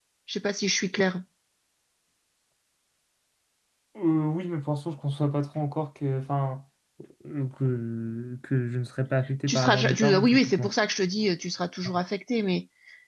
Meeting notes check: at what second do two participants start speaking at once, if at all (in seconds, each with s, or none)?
9.5 s